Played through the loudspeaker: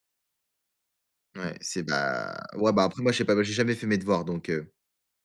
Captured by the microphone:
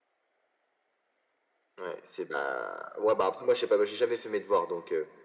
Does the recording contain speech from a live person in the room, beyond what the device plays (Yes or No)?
No